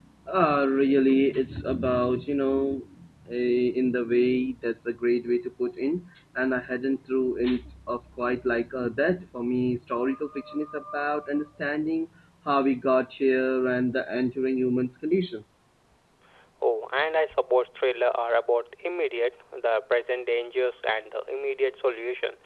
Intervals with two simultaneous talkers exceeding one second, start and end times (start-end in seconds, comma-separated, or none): none